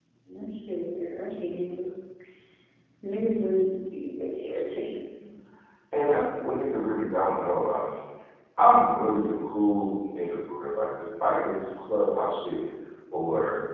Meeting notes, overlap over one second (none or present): none